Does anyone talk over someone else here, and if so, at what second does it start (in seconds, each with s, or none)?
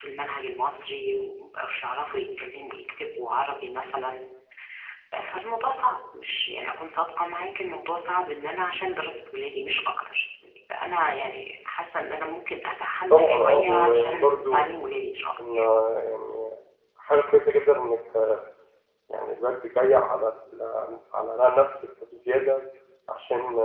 13.1 s